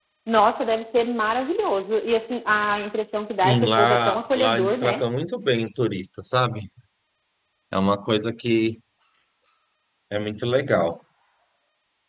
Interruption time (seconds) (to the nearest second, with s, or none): 3 s